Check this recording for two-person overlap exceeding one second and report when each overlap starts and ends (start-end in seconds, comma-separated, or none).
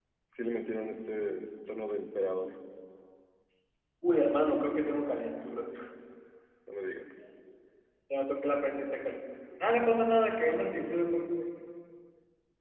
none